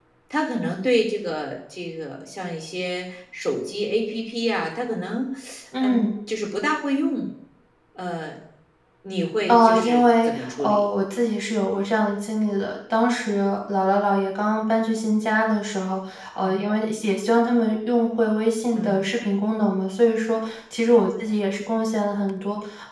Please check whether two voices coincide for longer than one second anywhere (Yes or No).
Yes